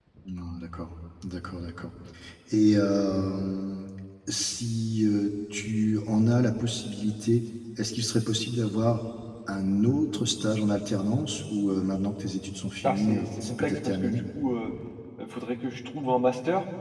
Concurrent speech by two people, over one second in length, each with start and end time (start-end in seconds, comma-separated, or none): 12.8-14.2